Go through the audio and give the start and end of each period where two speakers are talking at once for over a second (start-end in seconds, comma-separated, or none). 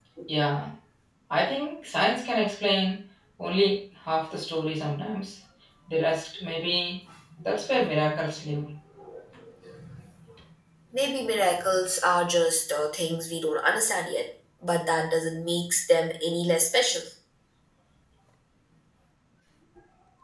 none